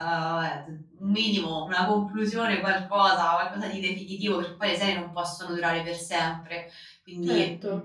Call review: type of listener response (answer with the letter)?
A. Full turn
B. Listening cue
A